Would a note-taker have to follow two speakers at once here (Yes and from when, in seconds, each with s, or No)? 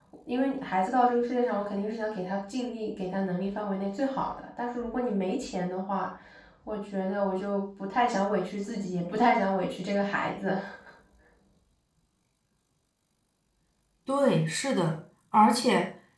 No